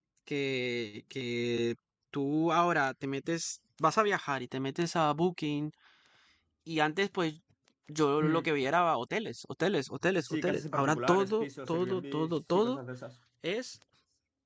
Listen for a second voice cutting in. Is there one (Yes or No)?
Yes